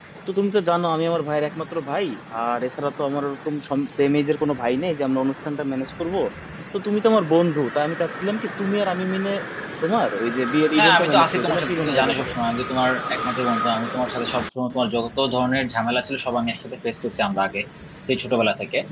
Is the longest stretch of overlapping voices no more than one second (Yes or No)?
No